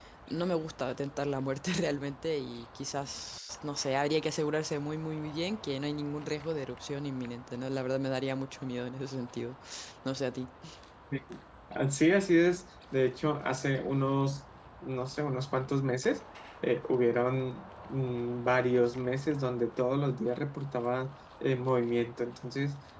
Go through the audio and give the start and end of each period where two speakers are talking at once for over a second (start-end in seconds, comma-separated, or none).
none